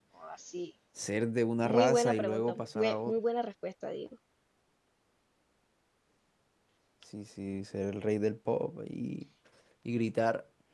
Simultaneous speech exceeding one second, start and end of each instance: 1.6-3.2

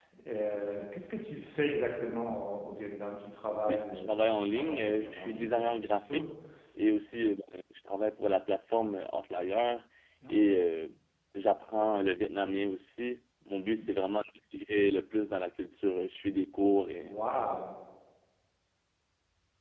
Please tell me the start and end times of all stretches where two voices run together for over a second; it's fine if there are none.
3.7-6.2

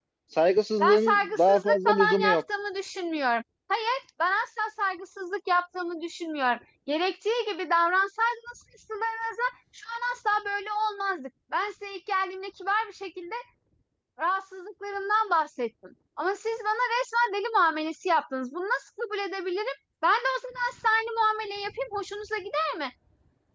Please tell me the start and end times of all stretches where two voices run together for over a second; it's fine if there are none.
0.8-2.4

